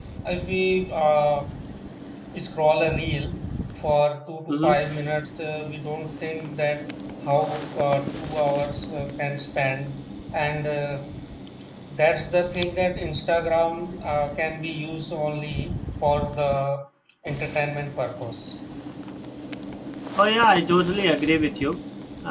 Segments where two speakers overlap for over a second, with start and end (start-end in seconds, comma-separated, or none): none